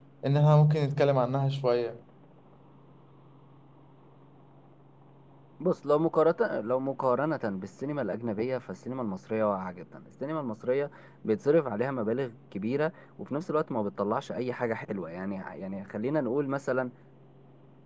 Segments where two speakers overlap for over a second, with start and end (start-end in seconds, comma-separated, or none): none